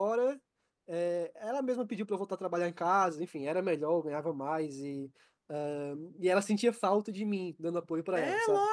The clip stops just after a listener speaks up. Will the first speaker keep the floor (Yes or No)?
No